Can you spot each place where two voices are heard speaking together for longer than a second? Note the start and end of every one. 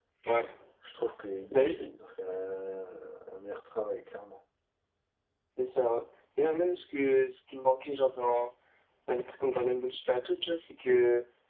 none

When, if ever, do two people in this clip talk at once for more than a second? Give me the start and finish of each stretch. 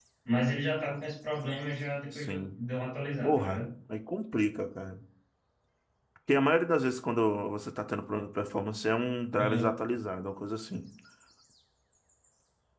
none

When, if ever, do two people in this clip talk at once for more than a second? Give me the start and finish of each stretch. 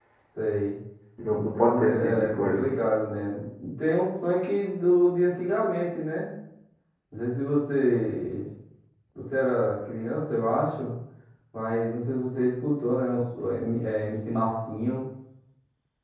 1.3-2.7

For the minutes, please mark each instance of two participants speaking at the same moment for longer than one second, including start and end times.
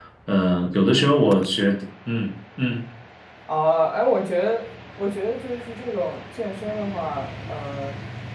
none

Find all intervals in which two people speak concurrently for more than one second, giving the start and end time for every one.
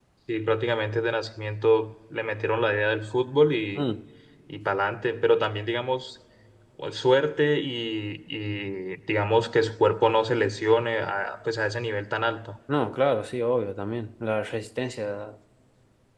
none

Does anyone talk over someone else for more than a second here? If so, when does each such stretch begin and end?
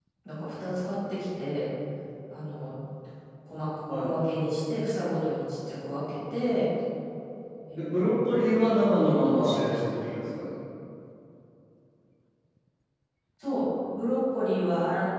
7.8-10.1

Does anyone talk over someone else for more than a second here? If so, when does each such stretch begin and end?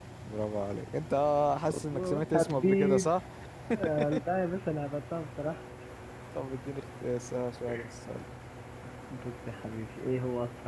1.7-3.1

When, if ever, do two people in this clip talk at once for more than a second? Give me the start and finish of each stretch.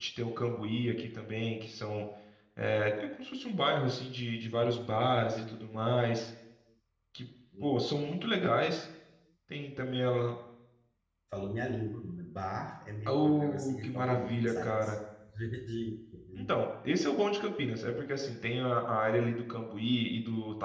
13.1-14.8

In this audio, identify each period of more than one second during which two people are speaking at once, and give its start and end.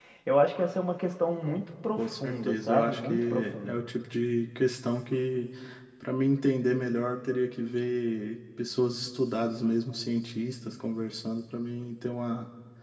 2.0-3.8

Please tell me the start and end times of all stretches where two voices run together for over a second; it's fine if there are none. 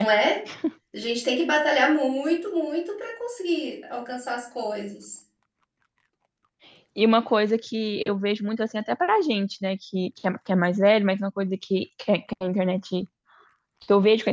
none

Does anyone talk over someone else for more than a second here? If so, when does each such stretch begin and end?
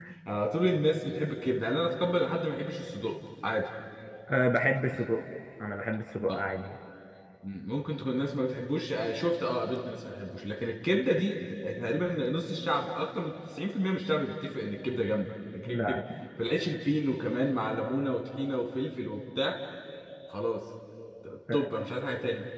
none

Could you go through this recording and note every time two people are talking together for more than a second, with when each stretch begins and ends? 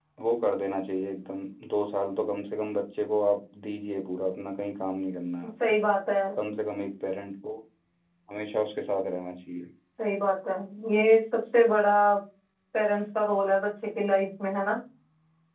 none

